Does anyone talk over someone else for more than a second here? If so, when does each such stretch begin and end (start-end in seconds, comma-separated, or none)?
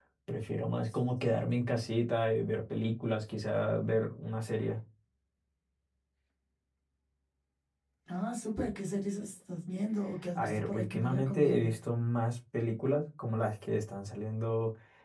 10.4-11.7